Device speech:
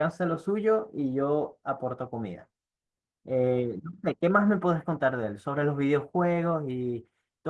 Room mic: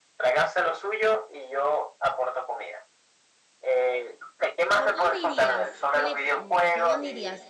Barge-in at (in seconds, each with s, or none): 4.7 s